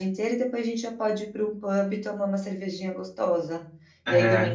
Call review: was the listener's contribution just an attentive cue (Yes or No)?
Yes